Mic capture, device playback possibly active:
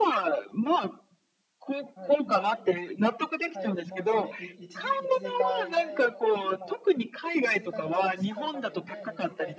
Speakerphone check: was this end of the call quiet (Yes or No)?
No